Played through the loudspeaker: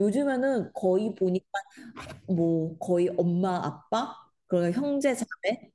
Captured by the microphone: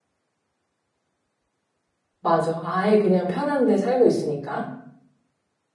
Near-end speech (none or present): present